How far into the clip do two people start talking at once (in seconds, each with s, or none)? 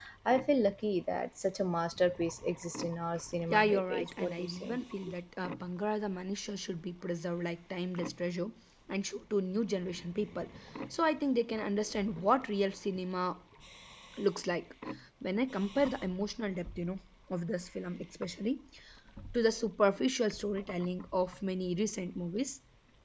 3.5 s